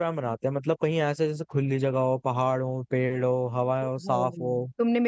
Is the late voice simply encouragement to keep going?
No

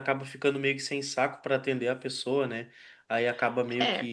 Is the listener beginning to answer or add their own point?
No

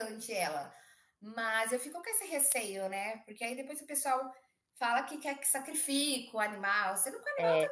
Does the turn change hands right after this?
No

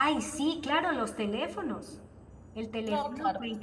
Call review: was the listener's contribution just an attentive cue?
Yes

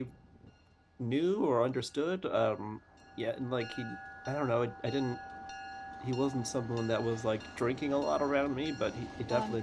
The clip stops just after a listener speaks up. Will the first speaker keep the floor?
Yes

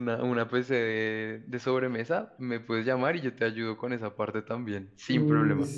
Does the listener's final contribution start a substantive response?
Yes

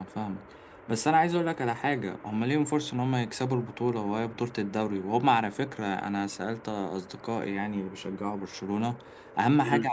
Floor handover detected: No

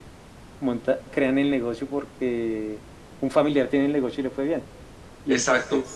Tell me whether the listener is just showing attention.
Yes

